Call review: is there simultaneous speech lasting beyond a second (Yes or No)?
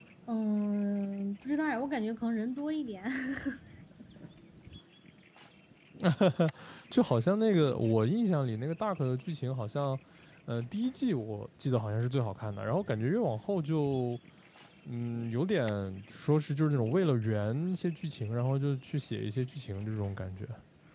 No